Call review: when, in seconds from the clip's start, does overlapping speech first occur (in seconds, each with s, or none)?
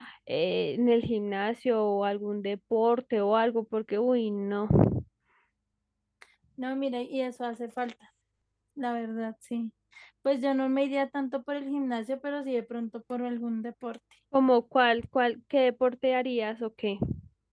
none